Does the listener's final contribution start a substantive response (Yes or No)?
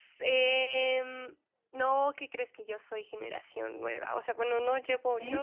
No